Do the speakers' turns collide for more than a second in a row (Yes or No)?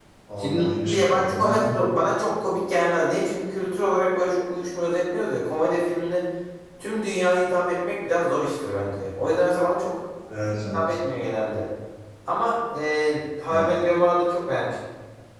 Yes